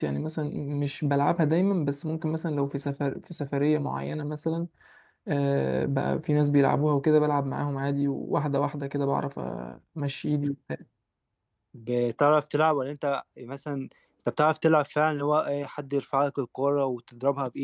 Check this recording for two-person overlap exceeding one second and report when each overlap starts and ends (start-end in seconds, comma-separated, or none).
none